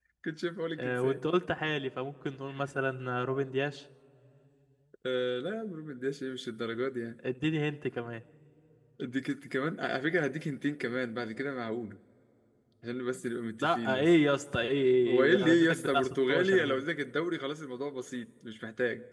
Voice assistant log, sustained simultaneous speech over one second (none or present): present